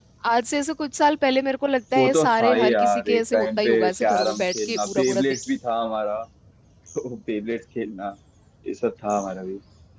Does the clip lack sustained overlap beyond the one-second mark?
No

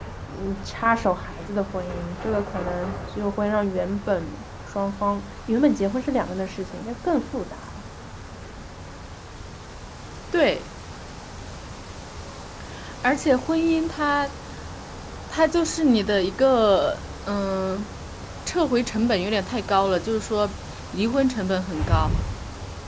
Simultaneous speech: No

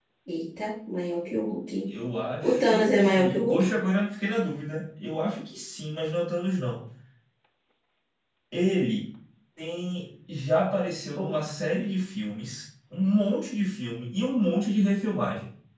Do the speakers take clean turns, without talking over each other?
No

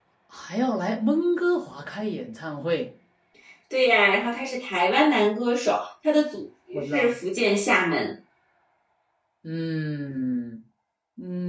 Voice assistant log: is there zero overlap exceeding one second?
Yes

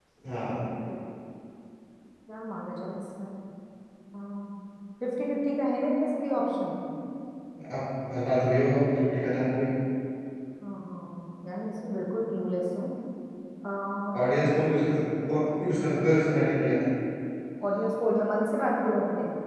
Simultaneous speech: No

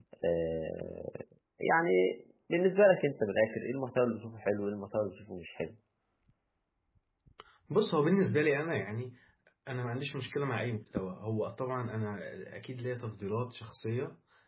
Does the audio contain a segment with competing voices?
No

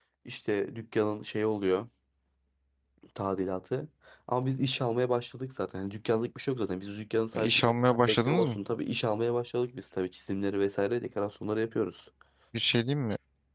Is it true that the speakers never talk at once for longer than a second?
Yes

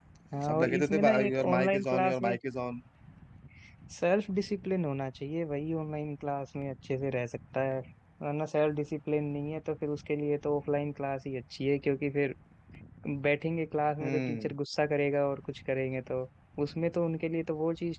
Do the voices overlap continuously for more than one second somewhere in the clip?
Yes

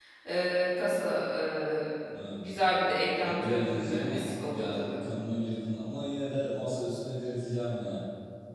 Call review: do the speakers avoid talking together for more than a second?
No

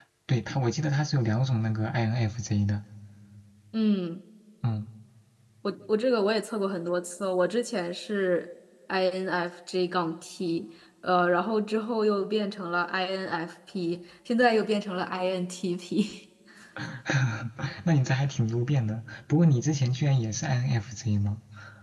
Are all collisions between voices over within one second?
Yes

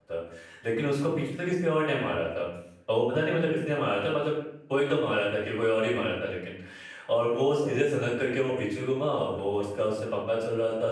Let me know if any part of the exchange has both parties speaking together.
No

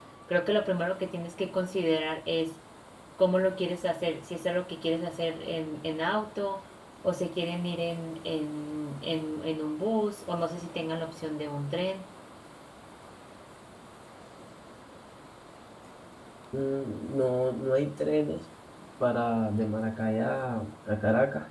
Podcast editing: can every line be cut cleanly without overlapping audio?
Yes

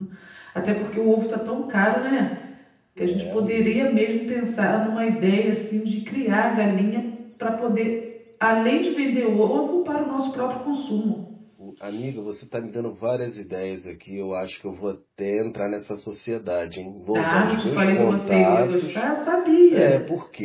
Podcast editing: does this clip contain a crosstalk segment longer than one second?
Yes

